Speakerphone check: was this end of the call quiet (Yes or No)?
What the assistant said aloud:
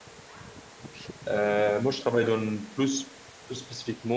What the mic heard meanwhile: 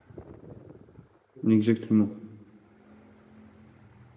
No